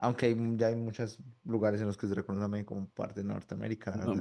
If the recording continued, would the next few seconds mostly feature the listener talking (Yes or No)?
Yes